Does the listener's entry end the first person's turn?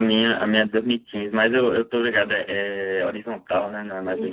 Yes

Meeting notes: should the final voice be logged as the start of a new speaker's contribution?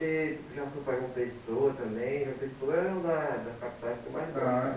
Yes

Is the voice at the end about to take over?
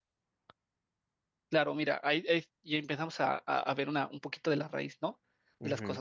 No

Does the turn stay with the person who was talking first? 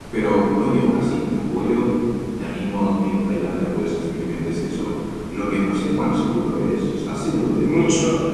No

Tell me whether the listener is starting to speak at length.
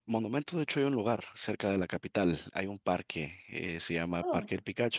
No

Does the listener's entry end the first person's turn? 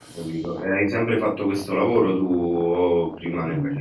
Yes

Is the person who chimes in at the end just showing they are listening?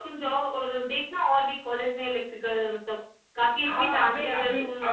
No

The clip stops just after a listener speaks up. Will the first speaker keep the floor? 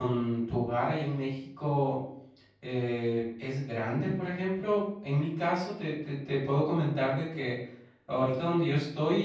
Yes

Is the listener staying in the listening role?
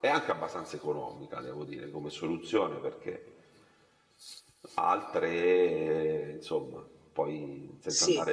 Yes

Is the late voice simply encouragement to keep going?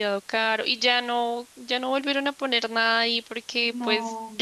Yes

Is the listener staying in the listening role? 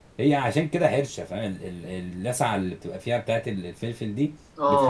No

